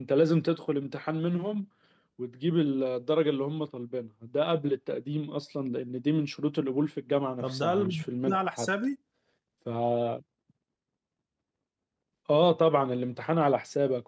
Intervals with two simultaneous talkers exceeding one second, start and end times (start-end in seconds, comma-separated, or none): 7.4-8.7